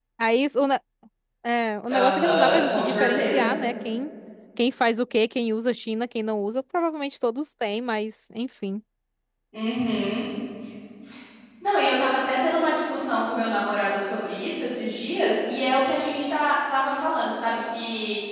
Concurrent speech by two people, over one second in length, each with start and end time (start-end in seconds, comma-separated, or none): 1.9-3.5